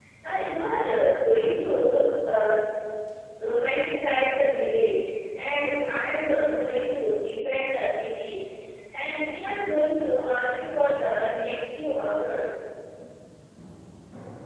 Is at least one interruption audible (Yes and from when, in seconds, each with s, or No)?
No